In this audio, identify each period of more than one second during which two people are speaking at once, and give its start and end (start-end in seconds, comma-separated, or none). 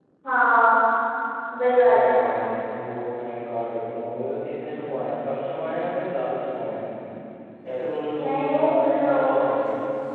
8.2-9.5